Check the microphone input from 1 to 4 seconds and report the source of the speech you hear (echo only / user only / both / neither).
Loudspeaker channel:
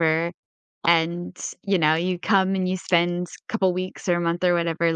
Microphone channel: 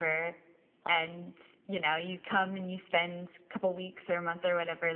echo only